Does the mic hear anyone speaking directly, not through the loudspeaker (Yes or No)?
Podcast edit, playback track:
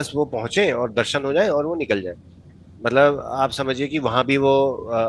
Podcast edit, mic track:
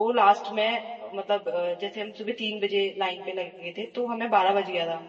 Yes